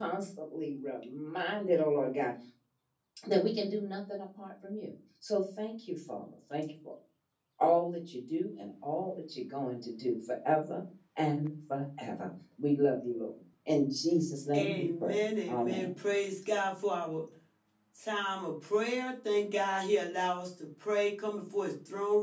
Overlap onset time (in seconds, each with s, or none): 14.5 s